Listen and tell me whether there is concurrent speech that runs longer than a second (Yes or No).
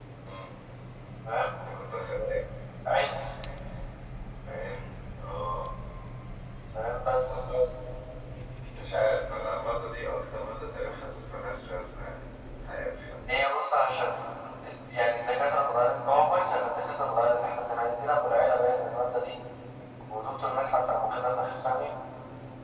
No